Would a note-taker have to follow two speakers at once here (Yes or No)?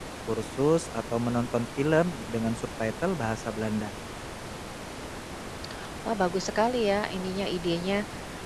No